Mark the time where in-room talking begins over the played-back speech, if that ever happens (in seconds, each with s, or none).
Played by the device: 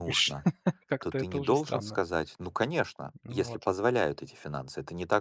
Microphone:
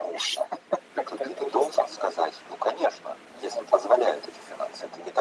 none